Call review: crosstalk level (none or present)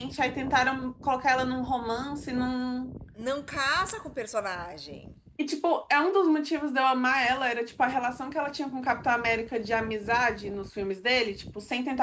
none